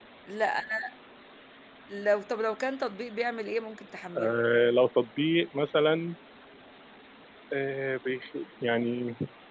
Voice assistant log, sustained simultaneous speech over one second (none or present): none